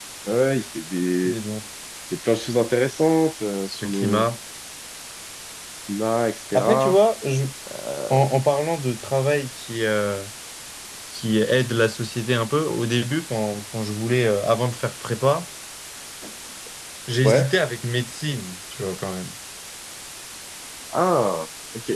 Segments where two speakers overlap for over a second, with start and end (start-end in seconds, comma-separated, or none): none